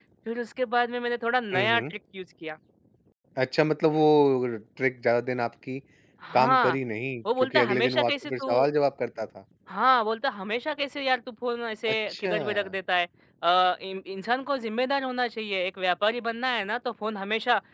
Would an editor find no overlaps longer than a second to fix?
No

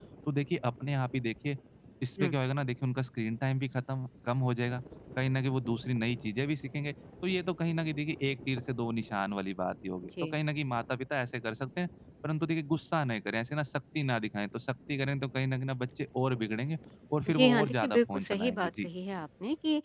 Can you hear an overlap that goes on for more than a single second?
Yes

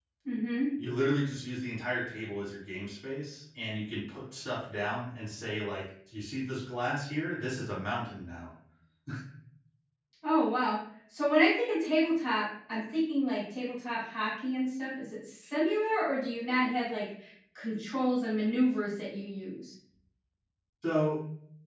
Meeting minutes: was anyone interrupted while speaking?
No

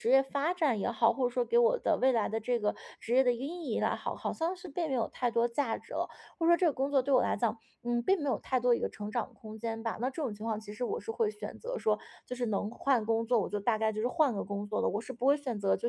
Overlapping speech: No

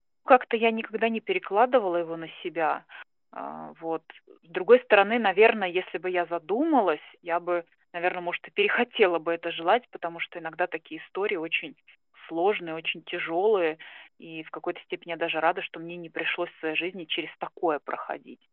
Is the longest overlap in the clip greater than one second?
No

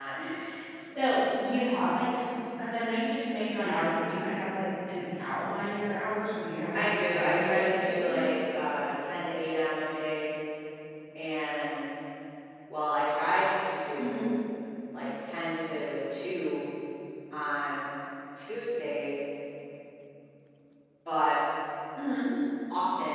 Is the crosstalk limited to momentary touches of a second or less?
No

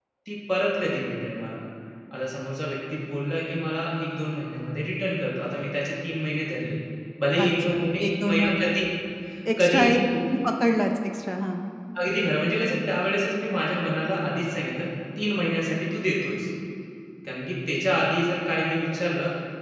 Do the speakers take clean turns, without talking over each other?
No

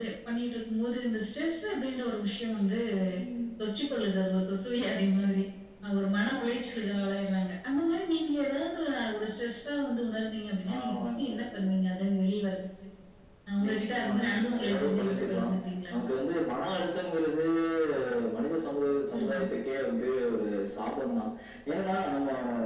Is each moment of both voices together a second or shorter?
No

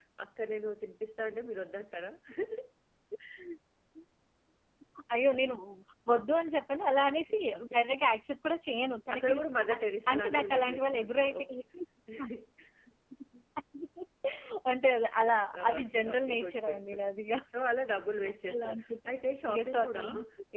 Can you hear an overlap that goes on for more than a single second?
Yes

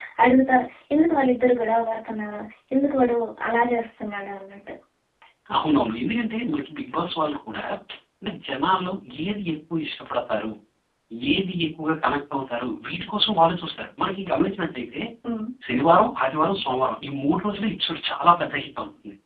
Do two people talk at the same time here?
No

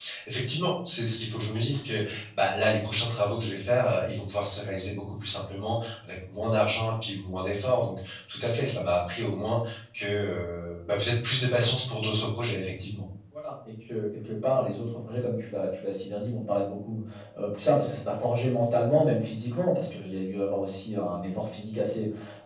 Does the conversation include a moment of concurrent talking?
No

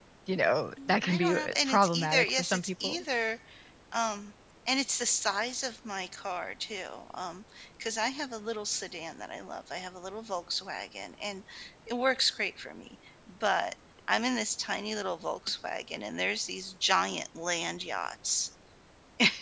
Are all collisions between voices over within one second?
No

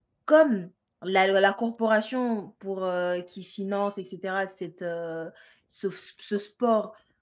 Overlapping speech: No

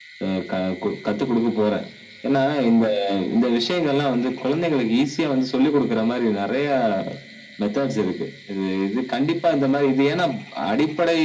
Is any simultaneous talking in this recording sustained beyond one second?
No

